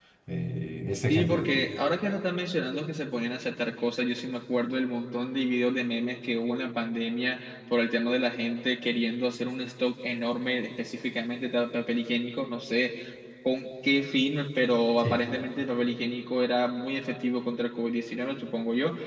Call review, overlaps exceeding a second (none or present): none